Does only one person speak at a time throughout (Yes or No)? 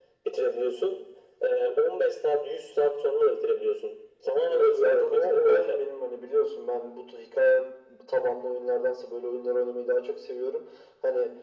No